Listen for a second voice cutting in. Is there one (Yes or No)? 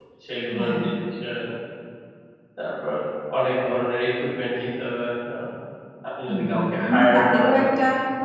Yes